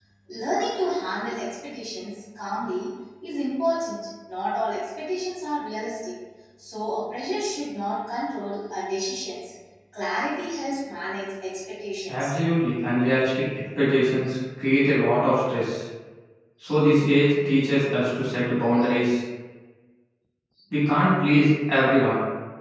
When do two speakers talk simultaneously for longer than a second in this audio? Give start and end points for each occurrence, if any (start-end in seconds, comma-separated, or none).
none